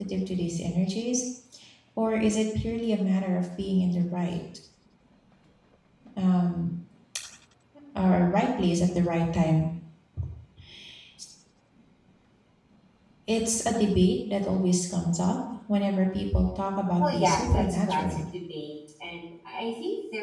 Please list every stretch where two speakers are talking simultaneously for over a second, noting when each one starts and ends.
17.0-18.2

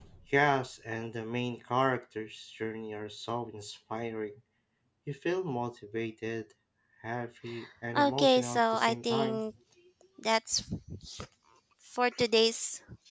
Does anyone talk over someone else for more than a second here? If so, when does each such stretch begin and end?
8.0-9.4

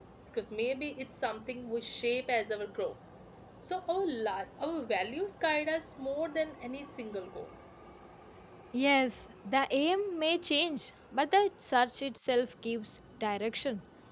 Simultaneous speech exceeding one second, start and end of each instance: none

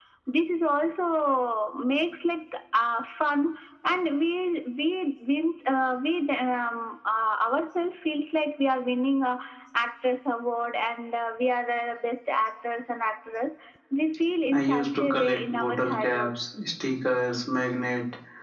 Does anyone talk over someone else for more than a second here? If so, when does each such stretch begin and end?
14.5-16.3

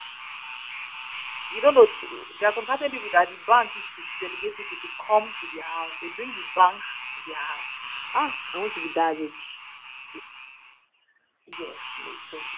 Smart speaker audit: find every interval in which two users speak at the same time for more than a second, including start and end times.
none

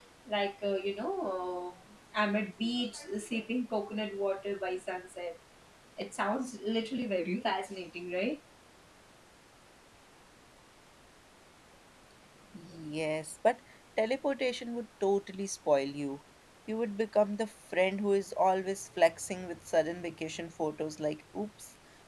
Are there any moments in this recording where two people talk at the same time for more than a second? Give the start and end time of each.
none

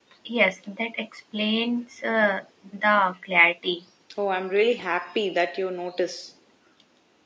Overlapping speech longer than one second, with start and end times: none

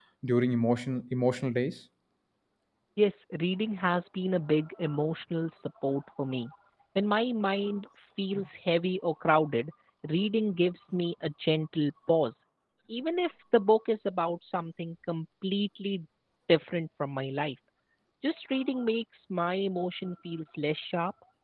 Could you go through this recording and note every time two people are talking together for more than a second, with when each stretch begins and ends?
none

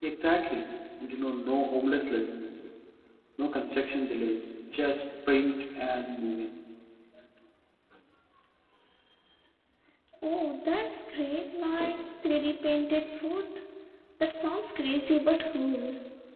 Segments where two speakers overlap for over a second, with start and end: none

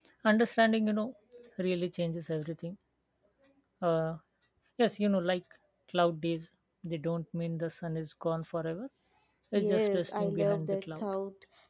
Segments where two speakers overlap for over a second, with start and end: 9.6-11.0

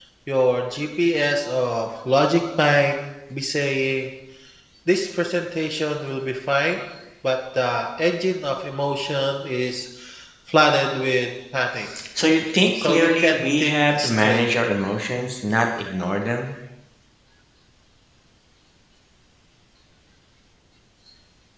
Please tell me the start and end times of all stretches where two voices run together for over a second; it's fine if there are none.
12.8-14.4

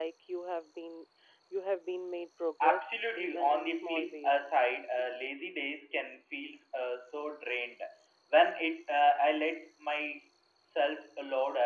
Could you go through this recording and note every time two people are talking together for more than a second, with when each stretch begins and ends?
2.6-4.5

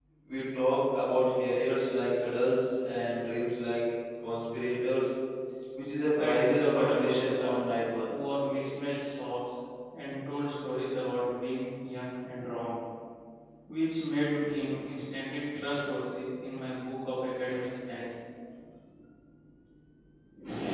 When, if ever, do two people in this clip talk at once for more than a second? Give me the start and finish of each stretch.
6.2-7.5

